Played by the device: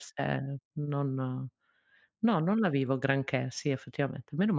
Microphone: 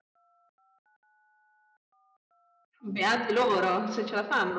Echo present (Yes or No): No